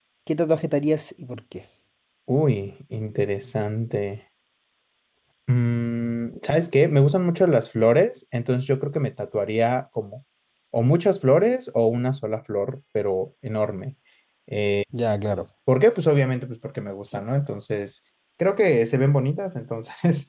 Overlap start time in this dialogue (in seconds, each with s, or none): none